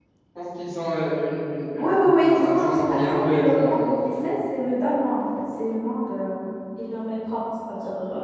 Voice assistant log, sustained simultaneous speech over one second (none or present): present